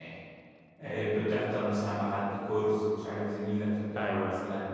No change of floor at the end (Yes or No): Yes